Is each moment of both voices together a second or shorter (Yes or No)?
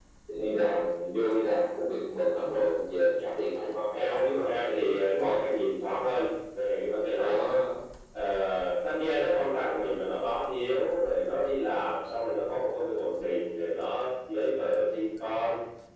No